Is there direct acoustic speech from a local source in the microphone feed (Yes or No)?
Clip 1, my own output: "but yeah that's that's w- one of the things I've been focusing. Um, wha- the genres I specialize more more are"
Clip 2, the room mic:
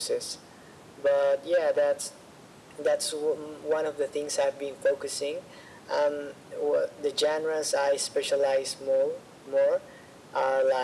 No